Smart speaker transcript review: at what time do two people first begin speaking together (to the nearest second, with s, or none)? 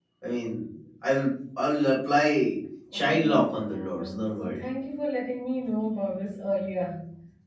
3 s